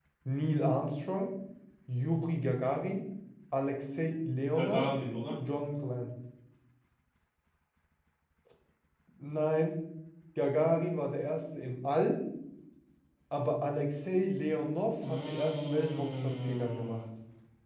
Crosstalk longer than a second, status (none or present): present